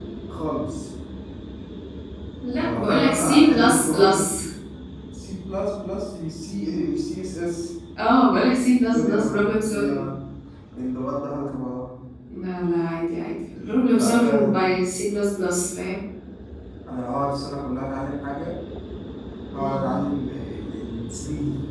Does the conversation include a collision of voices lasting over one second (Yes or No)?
Yes